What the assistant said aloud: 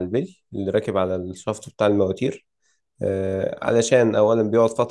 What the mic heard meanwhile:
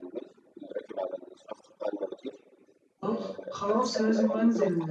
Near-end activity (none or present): present